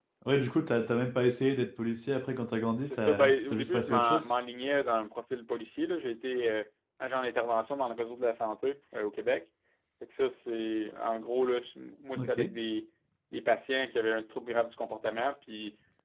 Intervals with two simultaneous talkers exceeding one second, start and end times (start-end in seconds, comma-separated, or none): 2.9-4.2